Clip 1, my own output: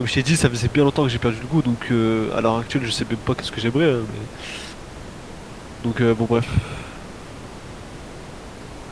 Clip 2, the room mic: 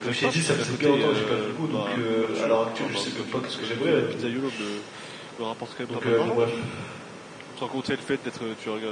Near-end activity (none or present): present